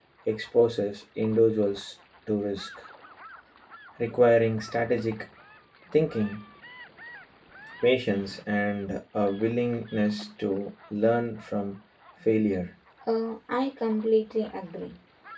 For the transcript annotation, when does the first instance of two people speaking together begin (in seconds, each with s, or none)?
none